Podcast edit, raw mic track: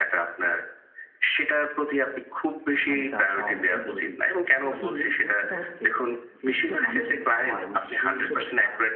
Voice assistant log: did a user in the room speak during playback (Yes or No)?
Yes